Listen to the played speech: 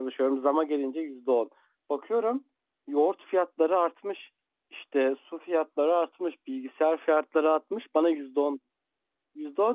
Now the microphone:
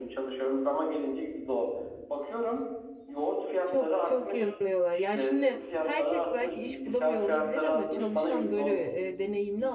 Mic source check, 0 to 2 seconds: echo only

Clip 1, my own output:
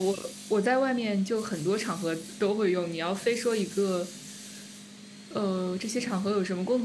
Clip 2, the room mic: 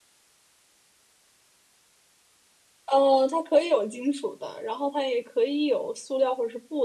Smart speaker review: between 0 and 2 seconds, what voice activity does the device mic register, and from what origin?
neither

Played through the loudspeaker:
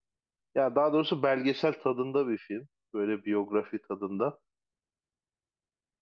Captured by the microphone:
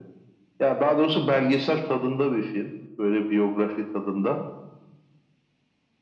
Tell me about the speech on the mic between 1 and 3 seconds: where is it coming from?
echo only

